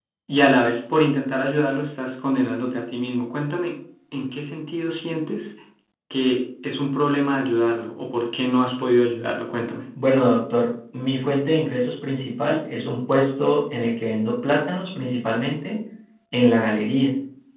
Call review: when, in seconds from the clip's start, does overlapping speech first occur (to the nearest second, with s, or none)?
none